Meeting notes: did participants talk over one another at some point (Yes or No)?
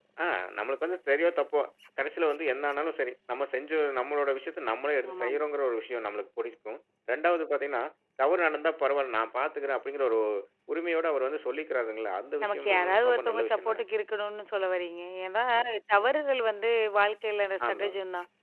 Yes